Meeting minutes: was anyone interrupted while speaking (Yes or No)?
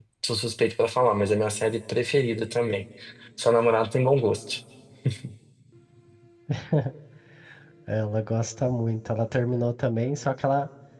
No